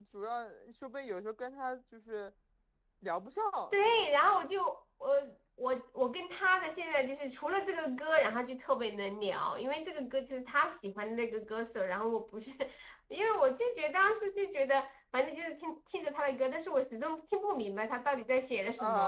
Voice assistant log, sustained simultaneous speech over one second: none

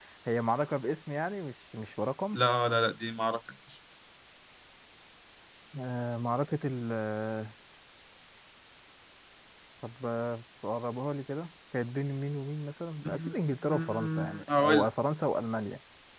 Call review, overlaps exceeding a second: present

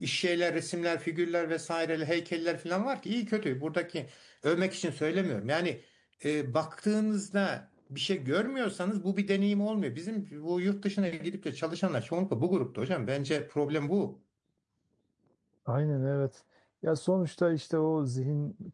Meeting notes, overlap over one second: none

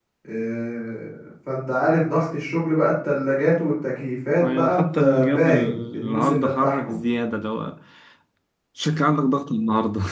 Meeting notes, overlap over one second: present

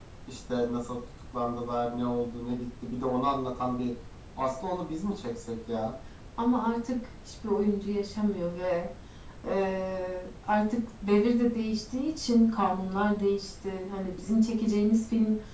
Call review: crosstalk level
none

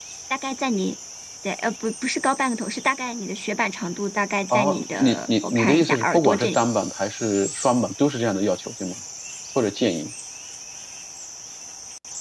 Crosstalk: present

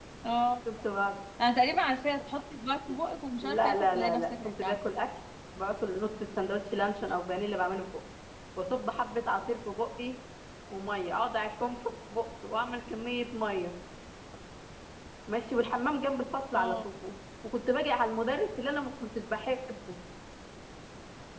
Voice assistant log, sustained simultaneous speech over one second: present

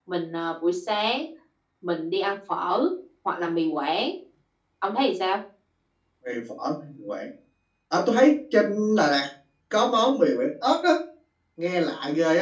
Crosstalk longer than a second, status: none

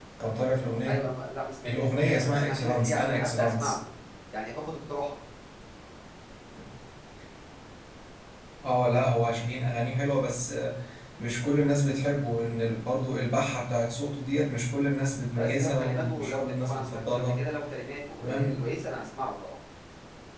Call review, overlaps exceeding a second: present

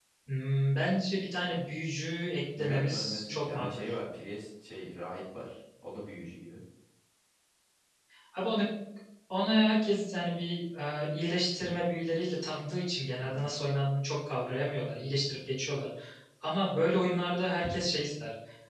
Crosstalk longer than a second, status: present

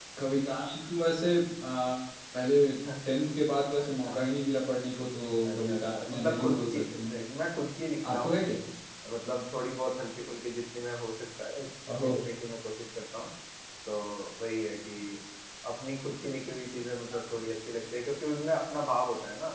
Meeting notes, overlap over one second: present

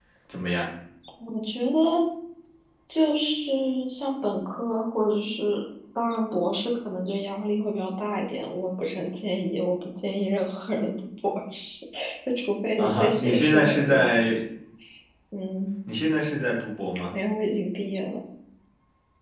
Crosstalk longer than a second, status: present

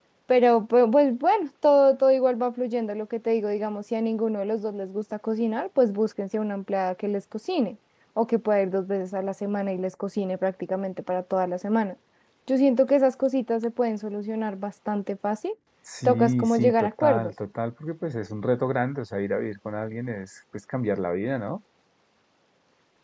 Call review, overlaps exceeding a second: present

